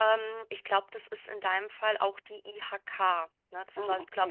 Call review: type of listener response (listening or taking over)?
listening